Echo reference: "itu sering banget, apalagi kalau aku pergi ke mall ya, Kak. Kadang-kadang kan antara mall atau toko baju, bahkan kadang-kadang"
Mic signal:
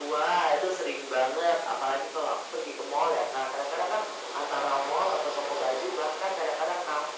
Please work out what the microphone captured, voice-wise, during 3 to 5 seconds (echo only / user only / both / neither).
echo only